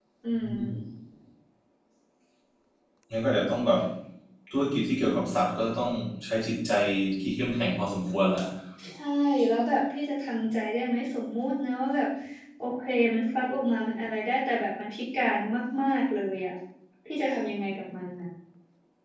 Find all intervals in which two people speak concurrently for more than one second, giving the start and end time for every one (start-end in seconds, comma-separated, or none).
none